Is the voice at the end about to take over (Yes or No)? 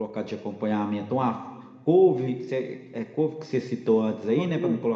Yes